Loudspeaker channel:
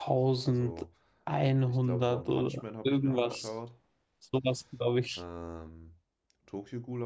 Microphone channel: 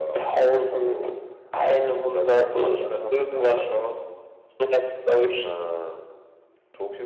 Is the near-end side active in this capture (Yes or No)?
No